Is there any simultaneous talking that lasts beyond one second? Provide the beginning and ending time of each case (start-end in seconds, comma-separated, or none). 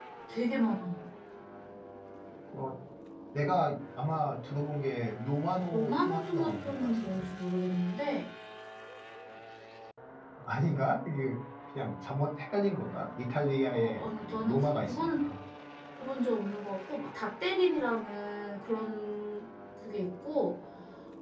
5.7-7.3, 13.7-15.2